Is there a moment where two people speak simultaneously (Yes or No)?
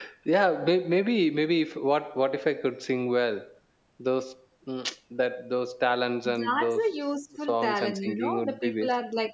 Yes